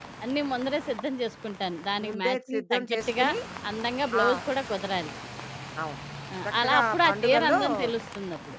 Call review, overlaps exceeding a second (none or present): present